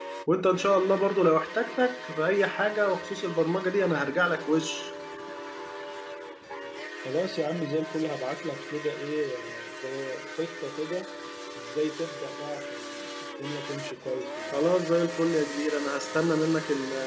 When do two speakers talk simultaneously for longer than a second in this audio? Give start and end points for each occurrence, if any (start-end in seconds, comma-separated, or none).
none